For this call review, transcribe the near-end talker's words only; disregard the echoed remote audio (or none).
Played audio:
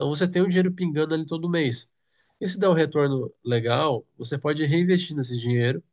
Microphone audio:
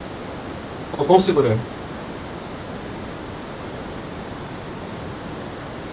O quão seguro é?